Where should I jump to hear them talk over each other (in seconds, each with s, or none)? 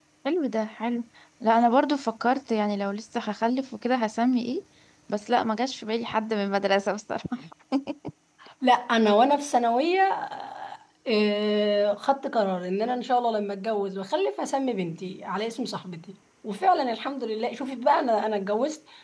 none